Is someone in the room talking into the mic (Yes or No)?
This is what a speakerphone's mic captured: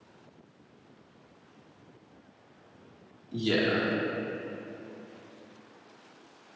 Yes